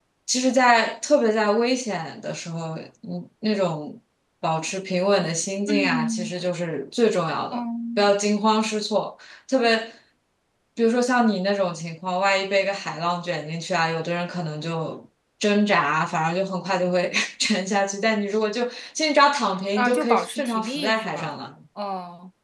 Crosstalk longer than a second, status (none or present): present